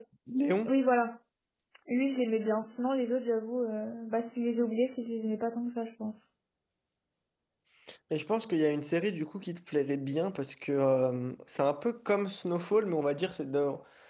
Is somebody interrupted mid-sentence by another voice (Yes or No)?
No